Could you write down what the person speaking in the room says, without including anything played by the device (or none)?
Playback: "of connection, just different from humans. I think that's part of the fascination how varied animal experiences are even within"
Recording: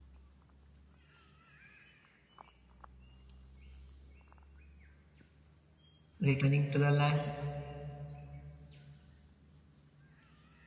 returning to the land,